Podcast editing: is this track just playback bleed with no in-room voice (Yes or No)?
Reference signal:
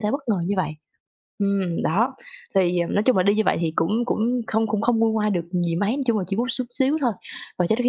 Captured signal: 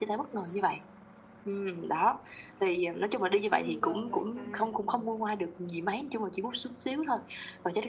No